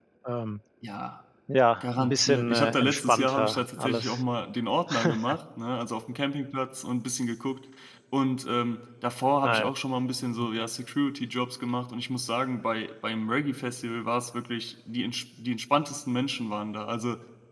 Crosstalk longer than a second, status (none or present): present